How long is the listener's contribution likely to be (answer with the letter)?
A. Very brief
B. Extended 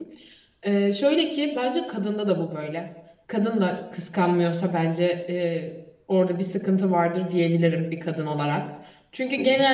A